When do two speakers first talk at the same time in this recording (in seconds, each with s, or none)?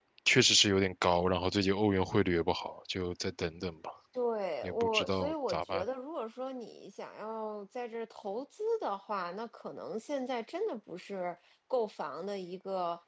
4.6 s